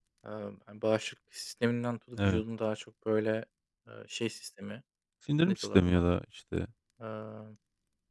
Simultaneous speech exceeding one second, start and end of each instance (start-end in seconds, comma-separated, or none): none